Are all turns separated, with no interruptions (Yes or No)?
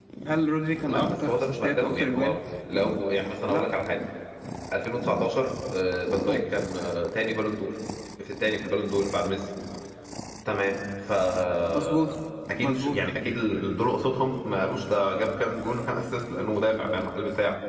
No